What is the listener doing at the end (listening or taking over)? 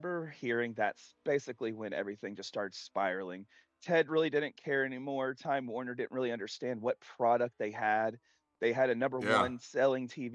listening